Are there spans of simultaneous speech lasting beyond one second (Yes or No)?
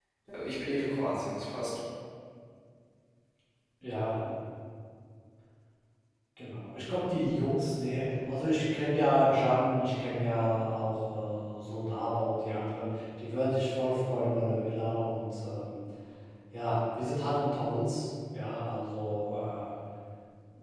No